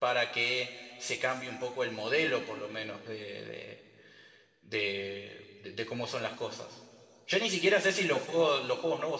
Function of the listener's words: listening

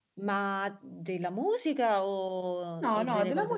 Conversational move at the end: taking over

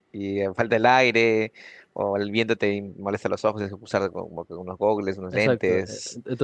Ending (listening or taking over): taking over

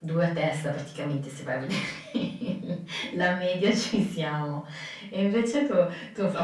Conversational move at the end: taking over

